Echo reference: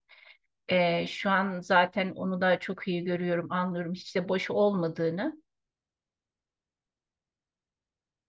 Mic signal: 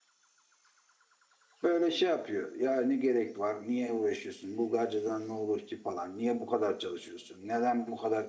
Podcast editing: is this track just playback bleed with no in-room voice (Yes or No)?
No